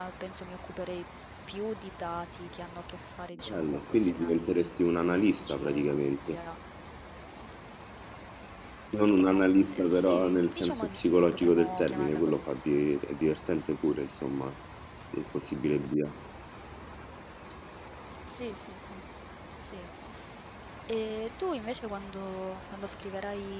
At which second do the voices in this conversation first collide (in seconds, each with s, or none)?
3.4 s